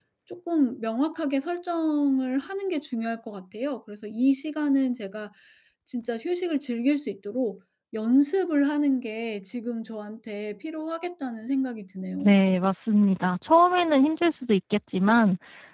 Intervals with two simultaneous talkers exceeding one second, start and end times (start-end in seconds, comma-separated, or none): none